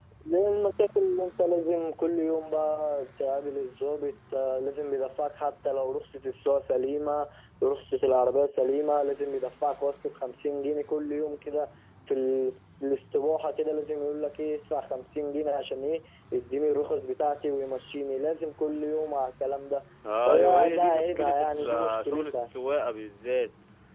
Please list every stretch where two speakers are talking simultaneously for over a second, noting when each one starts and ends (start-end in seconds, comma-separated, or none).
20.3-22.5